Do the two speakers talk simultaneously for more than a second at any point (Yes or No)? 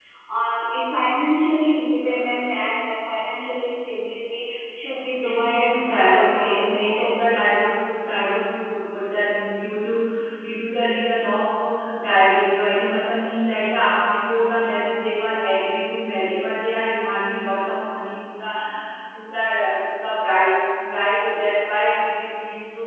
Yes